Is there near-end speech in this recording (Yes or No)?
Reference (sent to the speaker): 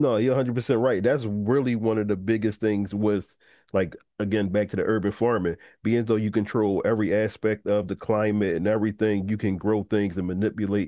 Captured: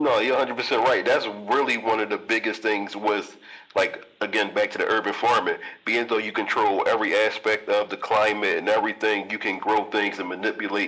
No